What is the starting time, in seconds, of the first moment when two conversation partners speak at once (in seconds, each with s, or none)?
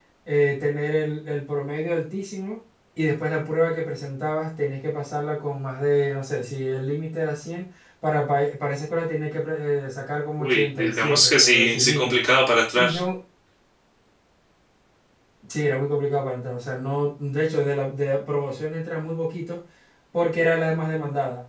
10.4 s